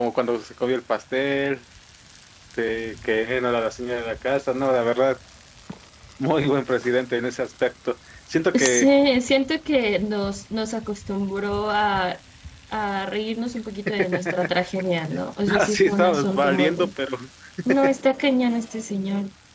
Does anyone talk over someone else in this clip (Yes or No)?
Yes